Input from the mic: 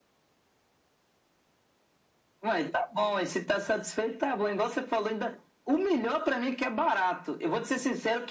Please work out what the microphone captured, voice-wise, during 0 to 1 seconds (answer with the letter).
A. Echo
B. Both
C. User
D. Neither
D